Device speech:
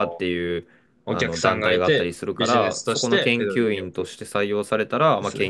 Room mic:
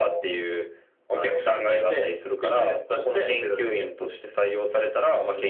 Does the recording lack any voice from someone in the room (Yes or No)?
Yes